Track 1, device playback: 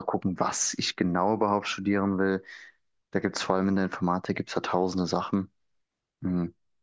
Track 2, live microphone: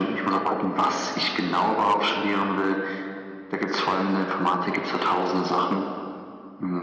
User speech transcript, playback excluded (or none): none